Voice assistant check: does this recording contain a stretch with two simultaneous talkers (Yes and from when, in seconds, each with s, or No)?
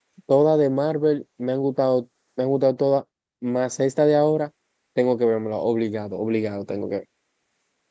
No